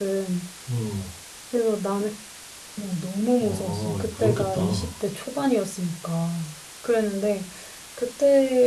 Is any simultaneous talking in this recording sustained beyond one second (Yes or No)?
Yes